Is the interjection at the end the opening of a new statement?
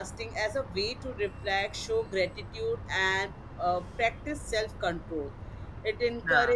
No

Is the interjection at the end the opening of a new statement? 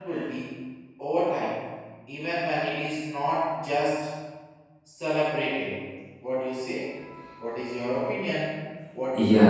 Yes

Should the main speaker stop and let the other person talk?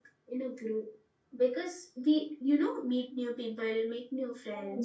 No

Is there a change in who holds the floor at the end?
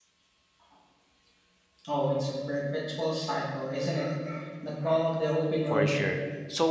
Yes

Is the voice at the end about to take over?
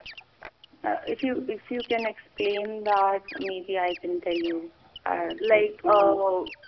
Yes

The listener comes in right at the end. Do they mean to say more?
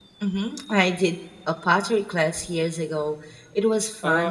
Yes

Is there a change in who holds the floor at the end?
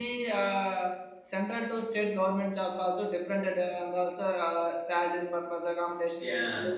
No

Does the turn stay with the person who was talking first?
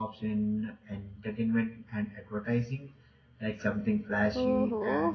No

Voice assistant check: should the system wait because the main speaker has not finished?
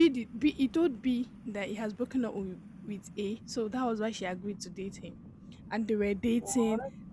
Yes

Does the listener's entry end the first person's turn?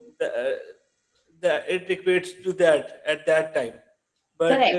Yes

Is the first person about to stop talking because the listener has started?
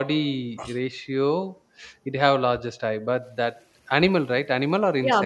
Yes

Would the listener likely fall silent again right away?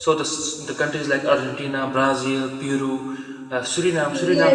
No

